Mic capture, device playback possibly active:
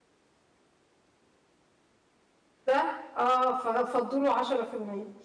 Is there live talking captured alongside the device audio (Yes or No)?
Yes